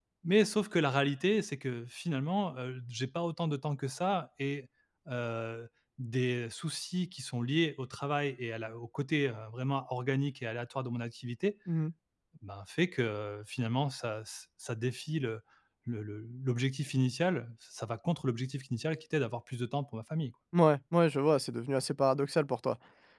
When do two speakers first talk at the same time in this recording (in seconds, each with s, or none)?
none